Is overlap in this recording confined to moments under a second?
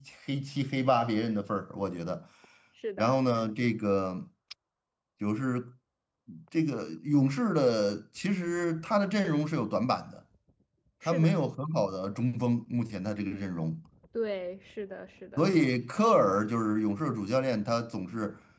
Yes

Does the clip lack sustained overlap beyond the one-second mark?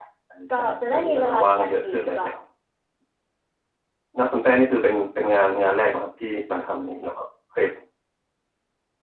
No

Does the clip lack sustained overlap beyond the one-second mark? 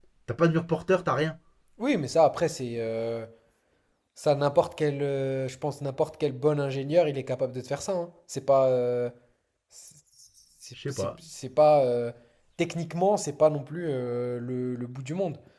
Yes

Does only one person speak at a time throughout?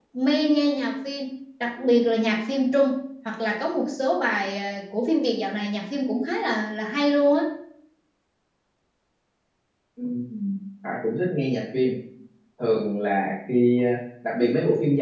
Yes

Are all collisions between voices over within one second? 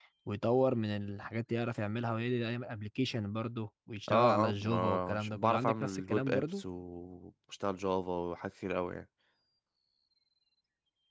No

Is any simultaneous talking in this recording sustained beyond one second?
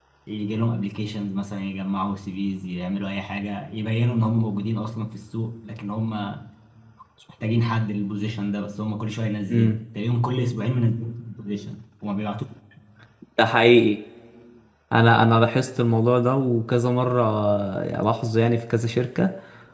No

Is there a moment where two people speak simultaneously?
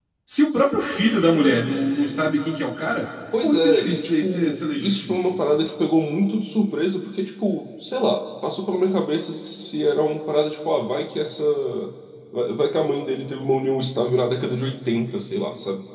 Yes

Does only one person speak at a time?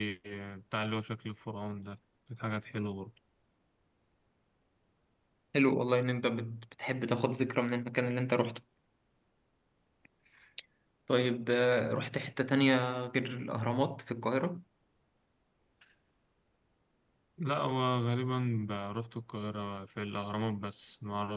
Yes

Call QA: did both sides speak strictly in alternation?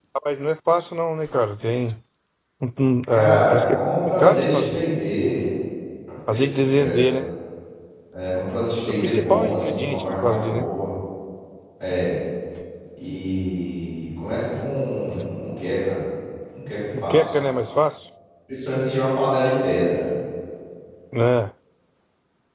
No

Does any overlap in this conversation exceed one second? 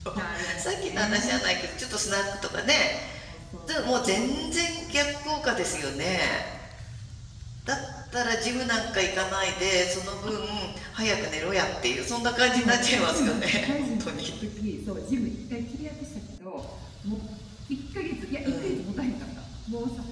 Yes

